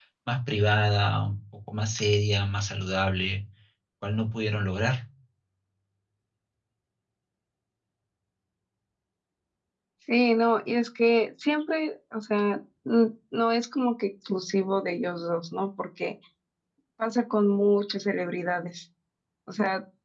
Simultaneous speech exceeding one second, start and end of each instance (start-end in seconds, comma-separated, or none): none